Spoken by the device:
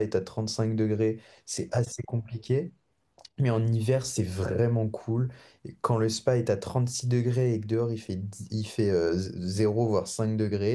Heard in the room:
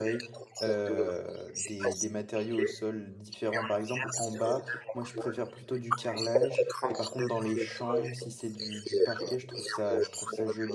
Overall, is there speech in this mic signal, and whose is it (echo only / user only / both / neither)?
both